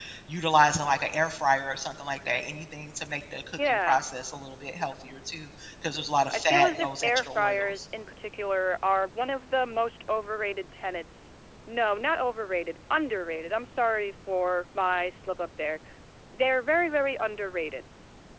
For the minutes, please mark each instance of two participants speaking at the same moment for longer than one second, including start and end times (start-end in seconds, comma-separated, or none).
6.3-7.8